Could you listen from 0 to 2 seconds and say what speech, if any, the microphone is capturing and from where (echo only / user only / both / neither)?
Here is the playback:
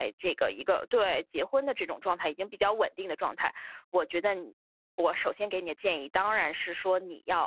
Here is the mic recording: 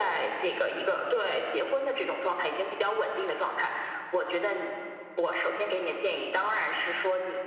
echo only